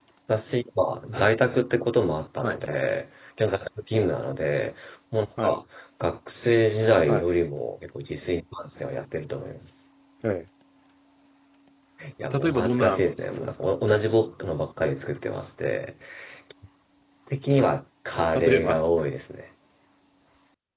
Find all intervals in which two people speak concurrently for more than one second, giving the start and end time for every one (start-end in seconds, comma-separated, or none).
12.3-13.7